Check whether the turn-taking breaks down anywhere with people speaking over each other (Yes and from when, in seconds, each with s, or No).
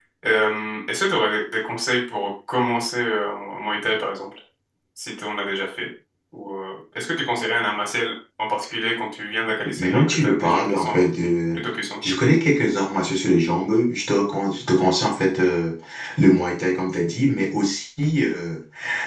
Yes, from 9.6 s